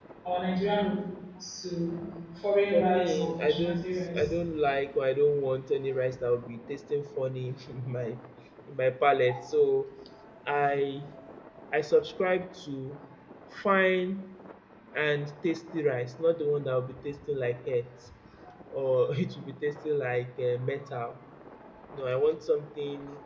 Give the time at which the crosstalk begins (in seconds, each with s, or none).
2.7 s